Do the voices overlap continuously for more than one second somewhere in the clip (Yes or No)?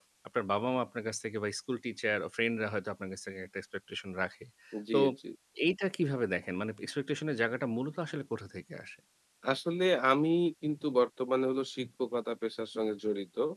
No